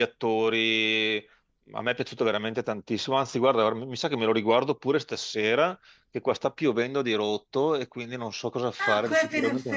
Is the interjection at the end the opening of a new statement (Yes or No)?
Yes